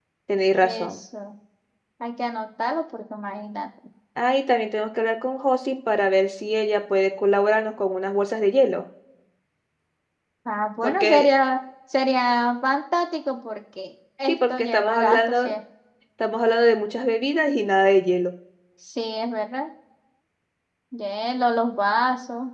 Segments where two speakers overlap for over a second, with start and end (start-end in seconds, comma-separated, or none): 14.3-15.5